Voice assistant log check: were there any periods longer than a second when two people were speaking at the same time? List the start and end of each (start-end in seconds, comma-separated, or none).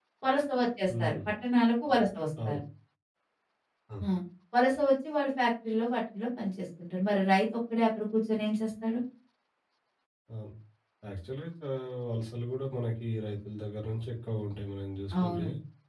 none